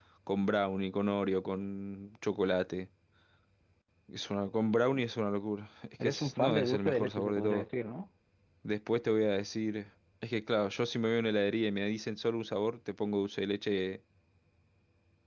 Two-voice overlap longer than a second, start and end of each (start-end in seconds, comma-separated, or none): 6.0-7.7